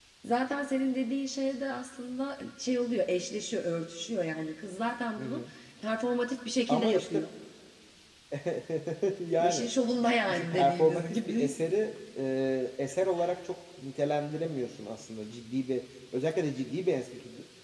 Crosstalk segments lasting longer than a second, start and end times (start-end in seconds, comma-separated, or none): 10.3-11.5